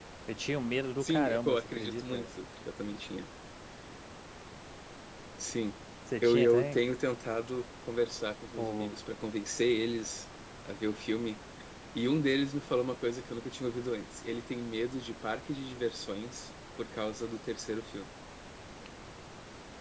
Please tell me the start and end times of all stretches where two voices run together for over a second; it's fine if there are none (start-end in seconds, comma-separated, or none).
1.0-2.3